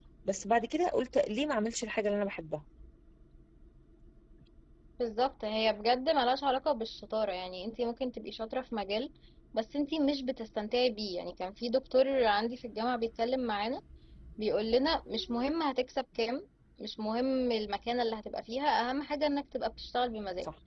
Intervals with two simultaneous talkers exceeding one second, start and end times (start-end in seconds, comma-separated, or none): none